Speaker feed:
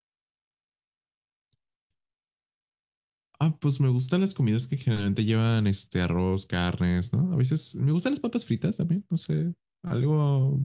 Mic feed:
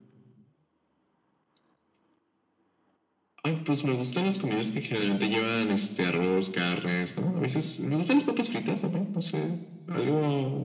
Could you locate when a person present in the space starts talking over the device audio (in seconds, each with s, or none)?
none